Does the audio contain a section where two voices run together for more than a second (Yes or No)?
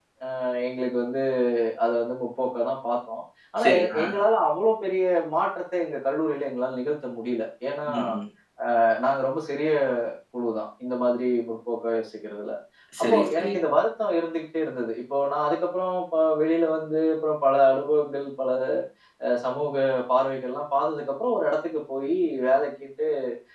No